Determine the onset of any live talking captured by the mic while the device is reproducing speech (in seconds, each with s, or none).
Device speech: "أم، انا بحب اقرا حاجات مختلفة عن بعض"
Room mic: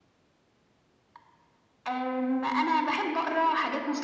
none